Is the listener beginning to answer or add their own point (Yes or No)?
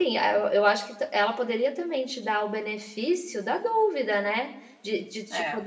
No